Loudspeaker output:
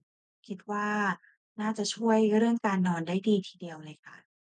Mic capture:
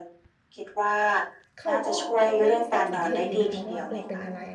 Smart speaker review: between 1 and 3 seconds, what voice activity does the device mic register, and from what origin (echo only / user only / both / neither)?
both